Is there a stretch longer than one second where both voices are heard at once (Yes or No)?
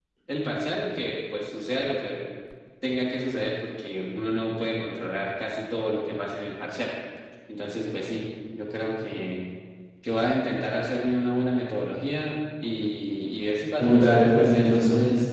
Yes